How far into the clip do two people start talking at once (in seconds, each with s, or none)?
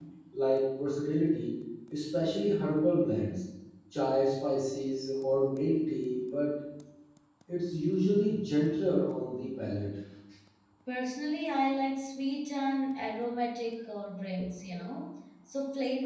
none